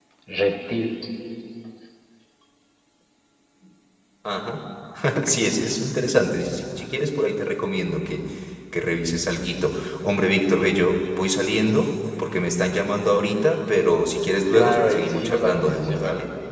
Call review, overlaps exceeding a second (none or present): present